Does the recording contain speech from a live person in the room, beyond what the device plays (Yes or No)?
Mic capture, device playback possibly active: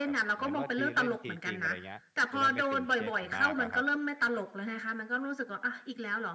Yes